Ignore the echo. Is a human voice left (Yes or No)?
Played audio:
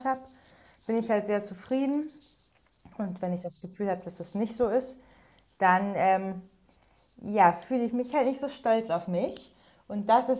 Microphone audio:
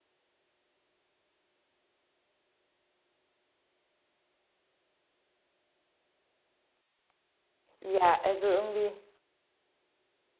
Yes